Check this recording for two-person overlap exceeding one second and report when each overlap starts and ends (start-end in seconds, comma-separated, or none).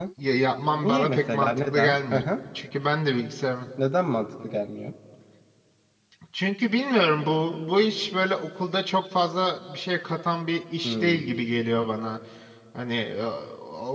0.8-2.2